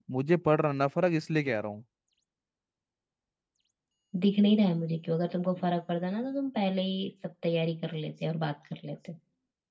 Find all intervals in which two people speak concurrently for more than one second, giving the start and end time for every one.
none

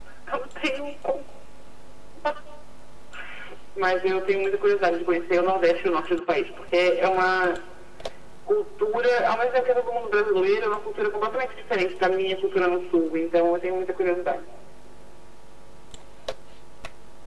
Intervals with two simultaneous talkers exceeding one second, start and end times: none

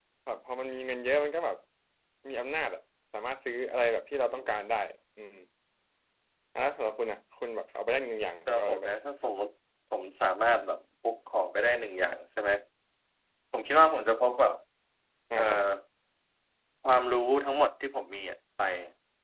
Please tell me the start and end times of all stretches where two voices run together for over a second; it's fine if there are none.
none

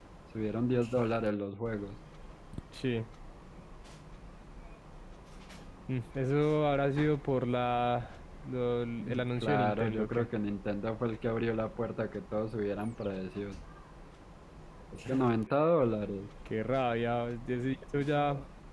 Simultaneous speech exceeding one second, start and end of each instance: 9.0-10.3

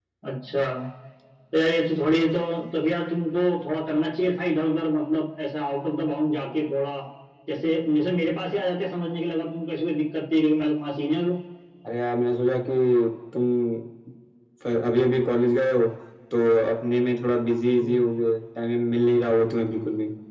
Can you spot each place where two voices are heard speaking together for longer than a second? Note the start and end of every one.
none

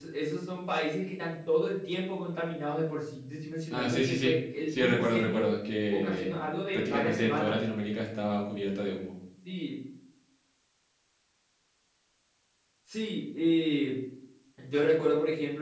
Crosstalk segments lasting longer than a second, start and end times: 3.7-5.5, 5.9-7.6

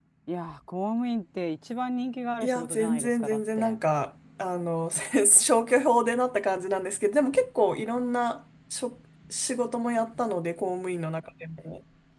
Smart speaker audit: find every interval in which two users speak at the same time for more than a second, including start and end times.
2.4-3.8

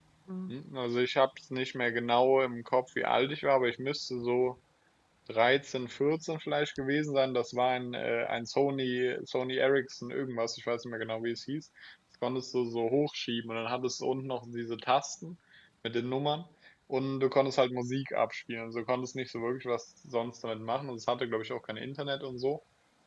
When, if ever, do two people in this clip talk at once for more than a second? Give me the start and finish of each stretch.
none

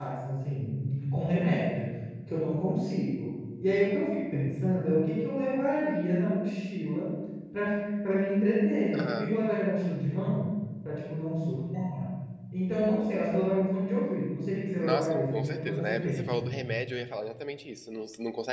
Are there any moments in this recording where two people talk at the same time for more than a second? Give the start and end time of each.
14.8-16.5

